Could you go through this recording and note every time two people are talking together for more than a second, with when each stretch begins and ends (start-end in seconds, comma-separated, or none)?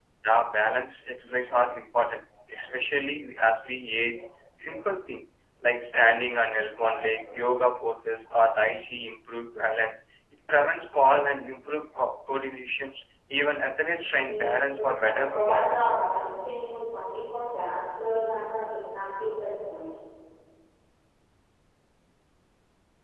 14.2-15.9